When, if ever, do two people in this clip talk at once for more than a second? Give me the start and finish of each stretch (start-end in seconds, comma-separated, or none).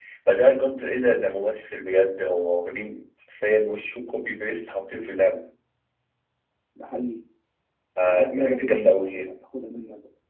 8.0-9.3